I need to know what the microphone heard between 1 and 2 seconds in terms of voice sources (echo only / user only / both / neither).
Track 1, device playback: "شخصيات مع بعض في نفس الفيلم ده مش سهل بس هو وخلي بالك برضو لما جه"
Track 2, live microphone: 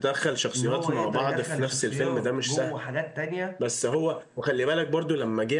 both